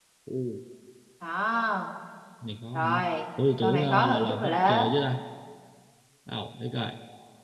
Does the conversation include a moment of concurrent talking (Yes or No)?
Yes